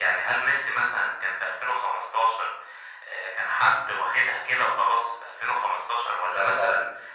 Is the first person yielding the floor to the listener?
No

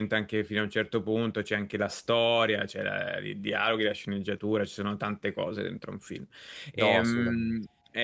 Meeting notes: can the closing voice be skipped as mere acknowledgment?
Yes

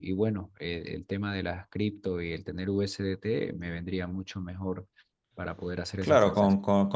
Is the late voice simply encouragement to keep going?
No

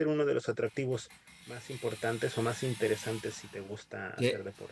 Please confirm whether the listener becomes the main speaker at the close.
Yes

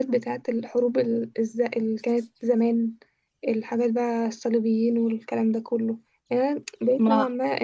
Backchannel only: Yes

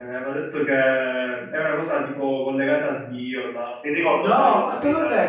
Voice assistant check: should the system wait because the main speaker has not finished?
No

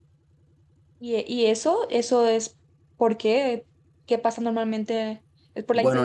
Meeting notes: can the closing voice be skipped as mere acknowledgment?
No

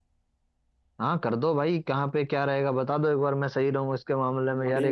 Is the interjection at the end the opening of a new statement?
Yes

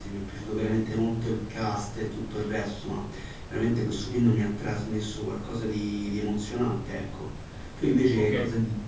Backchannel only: No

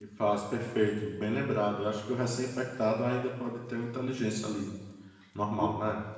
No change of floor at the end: No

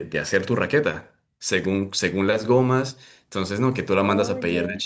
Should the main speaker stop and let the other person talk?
No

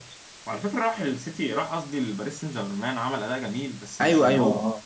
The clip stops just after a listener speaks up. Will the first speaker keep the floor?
No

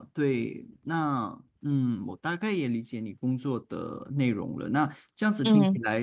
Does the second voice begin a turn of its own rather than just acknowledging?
No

